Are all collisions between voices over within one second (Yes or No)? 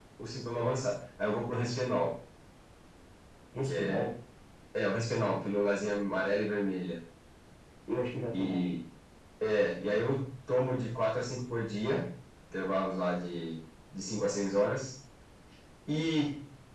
Yes